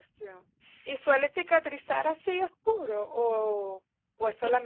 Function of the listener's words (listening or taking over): listening